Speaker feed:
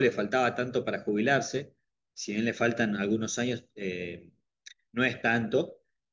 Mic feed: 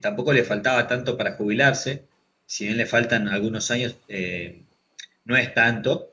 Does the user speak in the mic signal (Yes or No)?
No